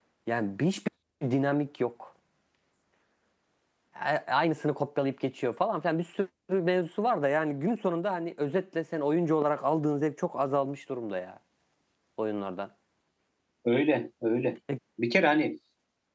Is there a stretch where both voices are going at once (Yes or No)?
No